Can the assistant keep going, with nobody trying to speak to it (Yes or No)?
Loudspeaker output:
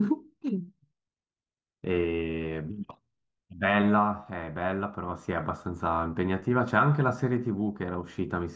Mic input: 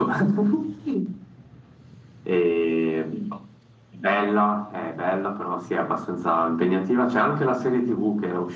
Yes